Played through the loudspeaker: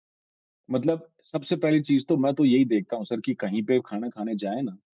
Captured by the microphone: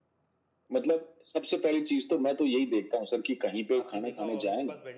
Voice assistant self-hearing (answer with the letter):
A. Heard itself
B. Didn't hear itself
A